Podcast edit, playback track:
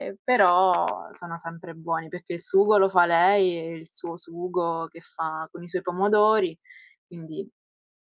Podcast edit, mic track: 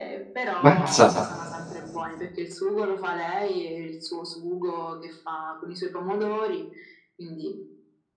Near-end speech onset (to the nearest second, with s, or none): 1 s